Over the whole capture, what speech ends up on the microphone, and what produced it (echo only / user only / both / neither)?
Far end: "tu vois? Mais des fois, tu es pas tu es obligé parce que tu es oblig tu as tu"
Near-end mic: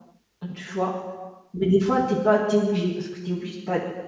echo only